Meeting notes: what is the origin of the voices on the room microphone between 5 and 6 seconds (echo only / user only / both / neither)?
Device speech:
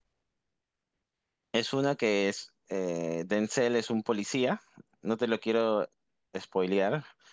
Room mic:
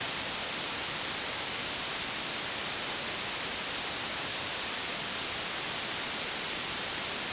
neither